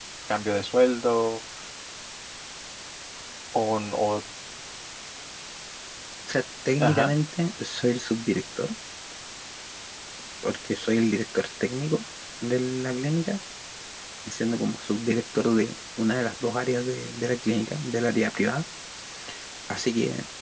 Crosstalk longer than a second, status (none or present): none